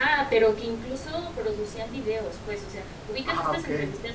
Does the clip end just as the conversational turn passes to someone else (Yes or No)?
No